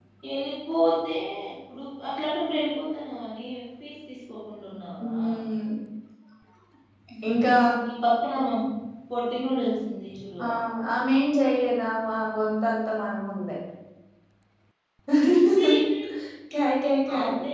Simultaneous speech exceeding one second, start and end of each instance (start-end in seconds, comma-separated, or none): none